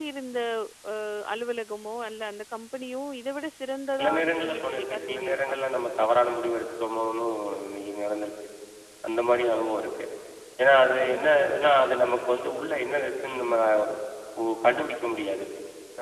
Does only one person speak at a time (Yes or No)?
No